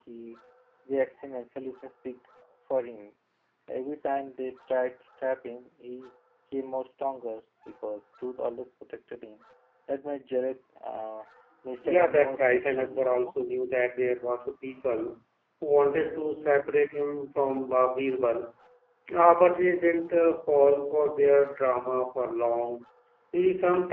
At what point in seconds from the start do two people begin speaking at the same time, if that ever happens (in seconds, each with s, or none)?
11.8 s